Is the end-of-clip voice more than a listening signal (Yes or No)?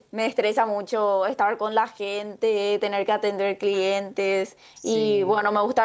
No